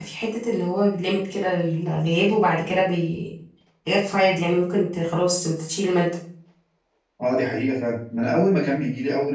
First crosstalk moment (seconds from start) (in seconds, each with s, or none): none